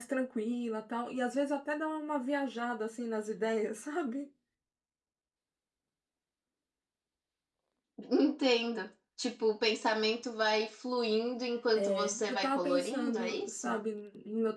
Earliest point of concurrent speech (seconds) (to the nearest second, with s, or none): 12 s